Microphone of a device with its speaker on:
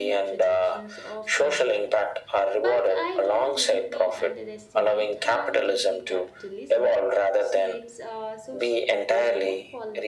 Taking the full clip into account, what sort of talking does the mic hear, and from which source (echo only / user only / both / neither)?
both